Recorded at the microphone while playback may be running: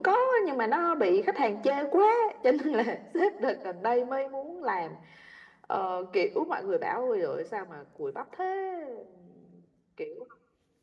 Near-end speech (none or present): none